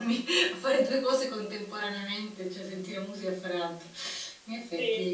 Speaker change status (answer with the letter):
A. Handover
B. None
A